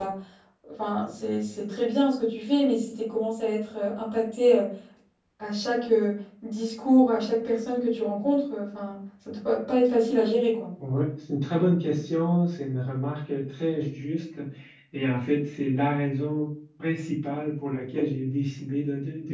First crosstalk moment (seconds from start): none

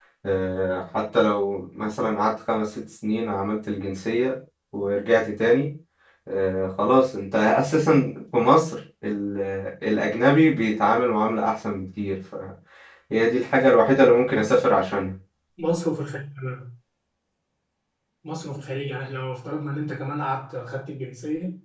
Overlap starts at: none

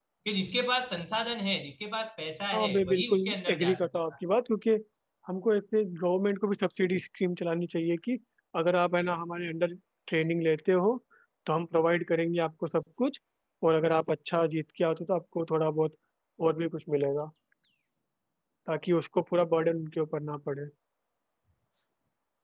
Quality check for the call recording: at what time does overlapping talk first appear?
3 s

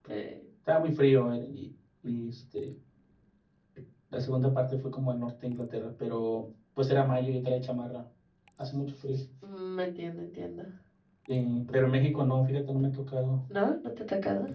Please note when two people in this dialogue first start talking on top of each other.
none

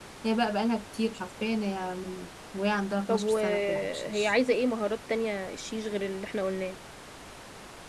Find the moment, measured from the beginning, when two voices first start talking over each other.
3 s

